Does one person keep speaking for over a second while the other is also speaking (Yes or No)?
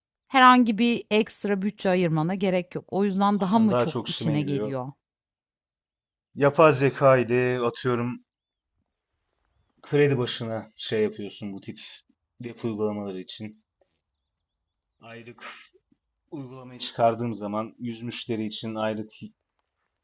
Yes